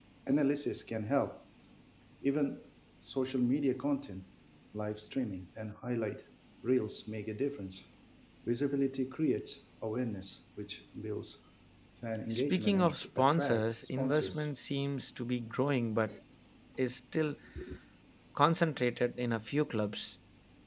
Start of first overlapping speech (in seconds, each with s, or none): 12.3 s